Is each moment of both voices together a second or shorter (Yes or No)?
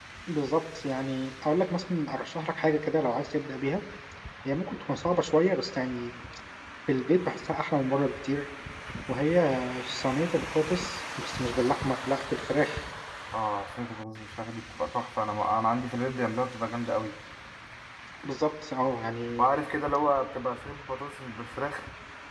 Yes